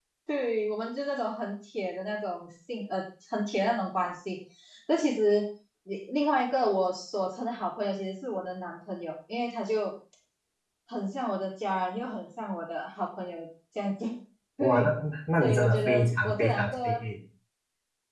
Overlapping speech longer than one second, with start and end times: 15.4-17.0

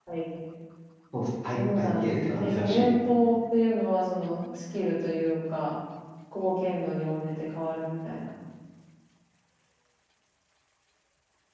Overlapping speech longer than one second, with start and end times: 1.5-2.9

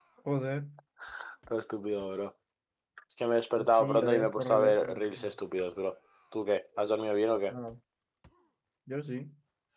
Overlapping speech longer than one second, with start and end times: 3.7-5.2

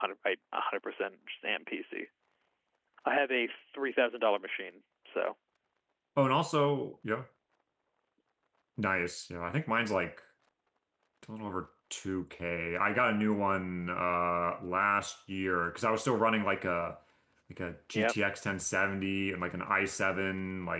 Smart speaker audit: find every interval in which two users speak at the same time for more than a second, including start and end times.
none

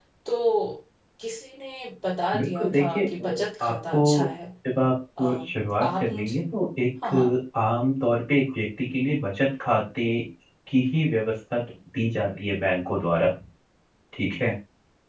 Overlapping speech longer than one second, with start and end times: 2.4-4.0

